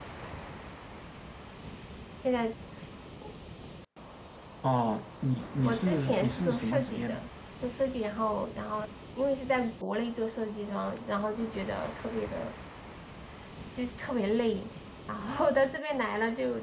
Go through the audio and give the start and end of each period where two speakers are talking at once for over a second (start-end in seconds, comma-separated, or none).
5.7-7.2